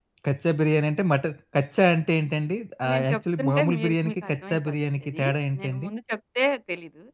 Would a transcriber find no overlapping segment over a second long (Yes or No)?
No